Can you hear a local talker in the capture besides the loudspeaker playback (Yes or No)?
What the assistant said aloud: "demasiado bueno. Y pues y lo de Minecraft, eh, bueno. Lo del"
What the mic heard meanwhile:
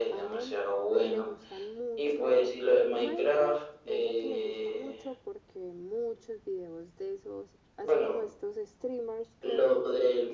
Yes